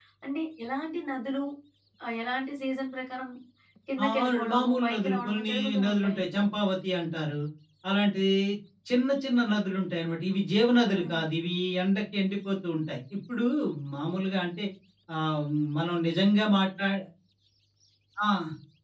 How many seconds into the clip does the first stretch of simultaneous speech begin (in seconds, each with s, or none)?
4.0 s